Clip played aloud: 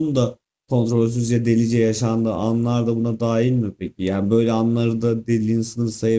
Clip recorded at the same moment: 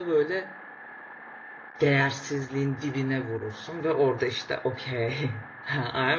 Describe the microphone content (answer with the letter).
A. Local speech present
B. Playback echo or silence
A